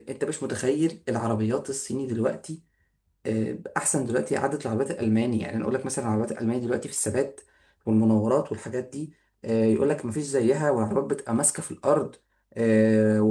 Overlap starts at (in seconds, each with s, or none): none